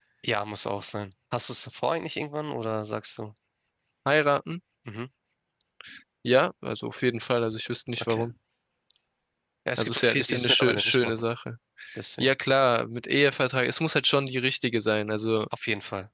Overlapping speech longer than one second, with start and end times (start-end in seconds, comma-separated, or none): 9.8-11.1